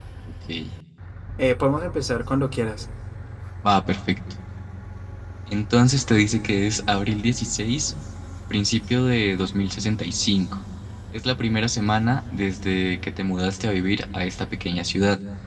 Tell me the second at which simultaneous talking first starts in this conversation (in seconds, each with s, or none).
none